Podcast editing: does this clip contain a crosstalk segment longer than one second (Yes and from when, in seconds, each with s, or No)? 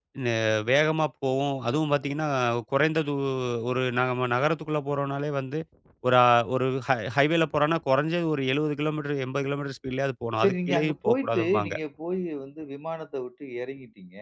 Yes, from 10.4 s